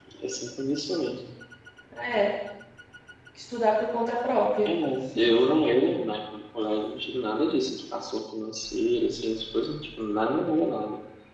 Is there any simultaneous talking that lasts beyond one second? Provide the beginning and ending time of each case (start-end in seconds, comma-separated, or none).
none